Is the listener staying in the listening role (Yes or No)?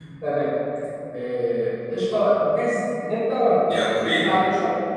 Yes